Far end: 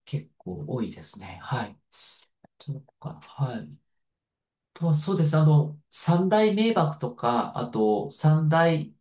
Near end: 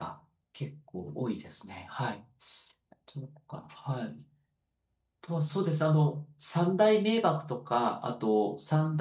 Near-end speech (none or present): none